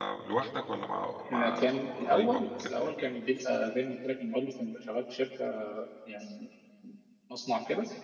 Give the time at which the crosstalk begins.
1.3 s

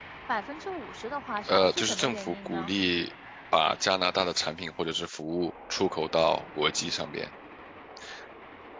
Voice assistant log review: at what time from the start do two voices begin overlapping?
1.5 s

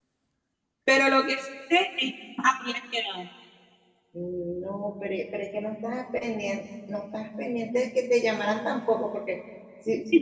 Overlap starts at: none

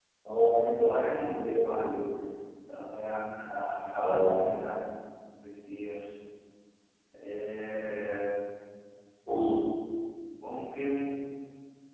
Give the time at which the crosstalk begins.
0.6 s

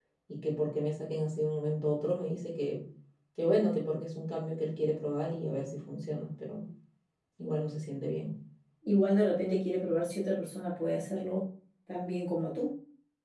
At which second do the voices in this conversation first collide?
none

